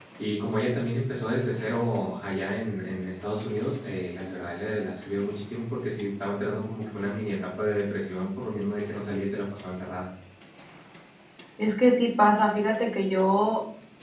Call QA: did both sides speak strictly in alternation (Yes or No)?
Yes